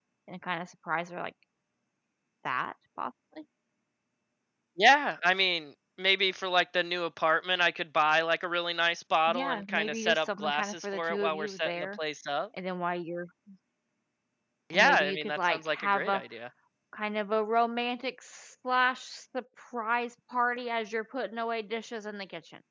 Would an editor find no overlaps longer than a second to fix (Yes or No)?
No